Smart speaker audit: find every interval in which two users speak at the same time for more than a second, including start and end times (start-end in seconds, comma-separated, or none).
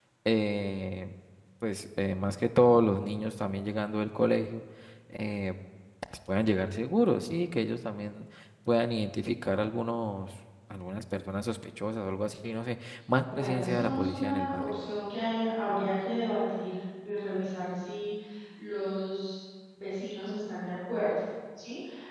13.2-14.7